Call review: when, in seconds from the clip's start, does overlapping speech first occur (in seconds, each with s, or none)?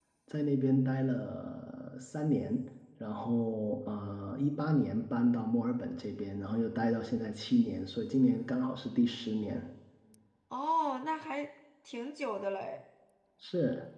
none